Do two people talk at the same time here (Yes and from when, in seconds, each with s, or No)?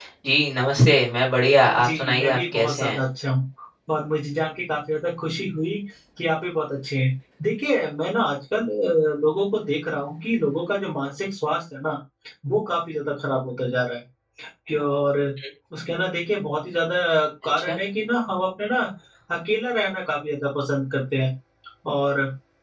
Yes, from 1.8 s